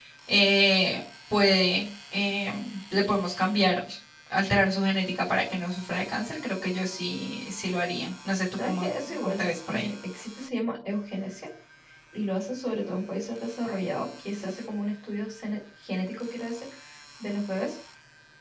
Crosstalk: present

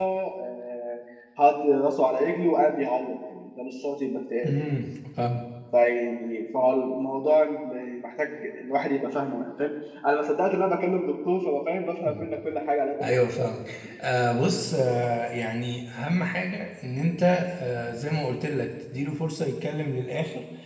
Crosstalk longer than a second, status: none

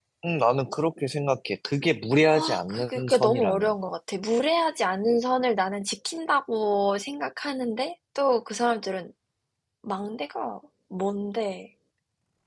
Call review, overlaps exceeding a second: present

